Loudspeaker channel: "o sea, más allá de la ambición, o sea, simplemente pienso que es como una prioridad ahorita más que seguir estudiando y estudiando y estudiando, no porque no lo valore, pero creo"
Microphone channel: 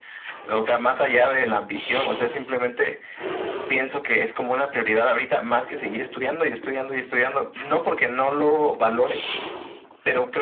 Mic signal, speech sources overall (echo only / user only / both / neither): echo only